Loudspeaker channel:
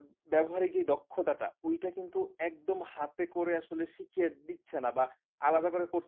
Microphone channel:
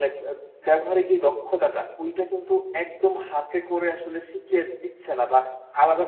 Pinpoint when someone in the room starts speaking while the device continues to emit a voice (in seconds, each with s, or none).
none